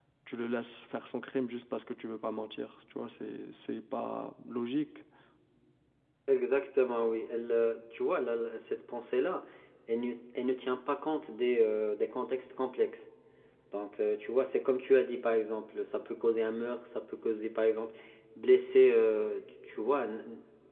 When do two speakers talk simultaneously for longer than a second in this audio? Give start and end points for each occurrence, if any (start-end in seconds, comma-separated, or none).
none